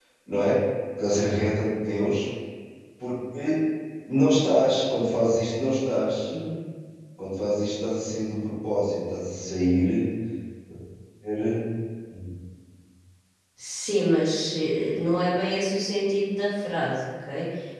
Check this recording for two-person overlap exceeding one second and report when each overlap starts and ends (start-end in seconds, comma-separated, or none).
none